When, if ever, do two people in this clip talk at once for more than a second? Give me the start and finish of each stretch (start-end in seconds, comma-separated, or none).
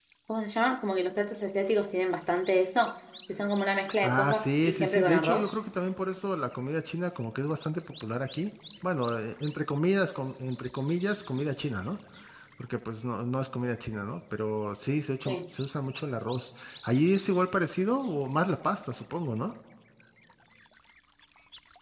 4.0-5.5